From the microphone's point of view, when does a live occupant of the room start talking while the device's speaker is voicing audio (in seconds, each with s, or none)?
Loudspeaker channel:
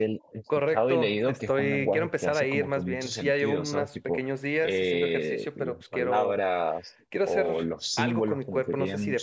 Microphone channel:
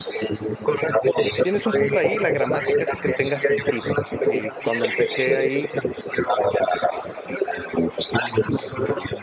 1.4 s